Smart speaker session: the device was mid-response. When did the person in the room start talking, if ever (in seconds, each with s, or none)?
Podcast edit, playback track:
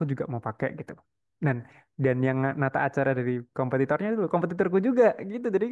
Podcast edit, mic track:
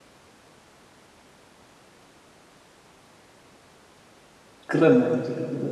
4.7 s